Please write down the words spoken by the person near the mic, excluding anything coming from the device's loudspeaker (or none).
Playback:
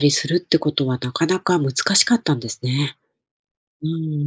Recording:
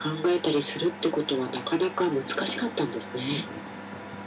none